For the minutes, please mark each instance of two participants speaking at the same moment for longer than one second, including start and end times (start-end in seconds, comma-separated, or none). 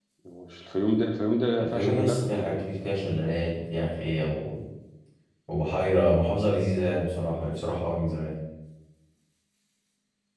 1.6-3.0